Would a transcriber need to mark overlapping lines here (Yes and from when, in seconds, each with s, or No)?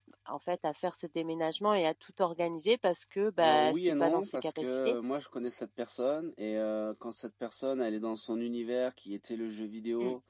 Yes, from 3.4 s